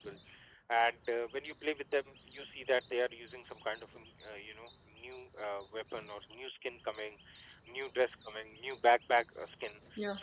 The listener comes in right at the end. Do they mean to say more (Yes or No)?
No